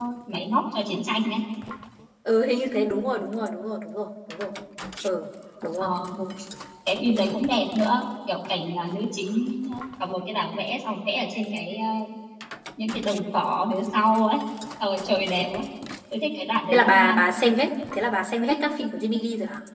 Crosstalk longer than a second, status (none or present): none